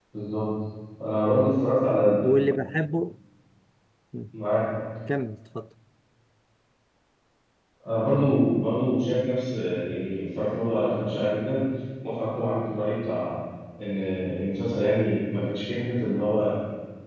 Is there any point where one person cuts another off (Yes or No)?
No